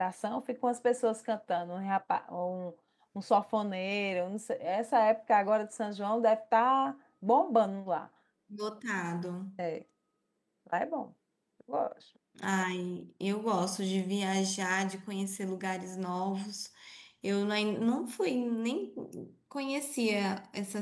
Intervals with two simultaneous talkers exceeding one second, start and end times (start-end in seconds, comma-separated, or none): none